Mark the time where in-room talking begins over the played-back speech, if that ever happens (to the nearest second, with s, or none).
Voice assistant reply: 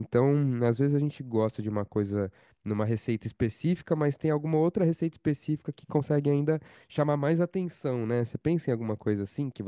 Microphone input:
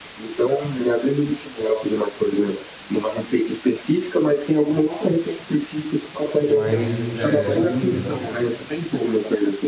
6 s